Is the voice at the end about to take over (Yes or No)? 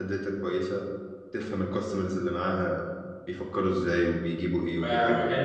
Yes